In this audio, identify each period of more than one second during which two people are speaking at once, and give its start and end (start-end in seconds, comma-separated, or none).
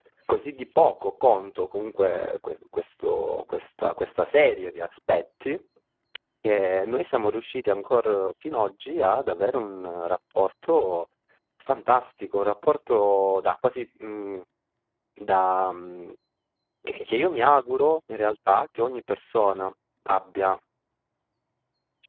none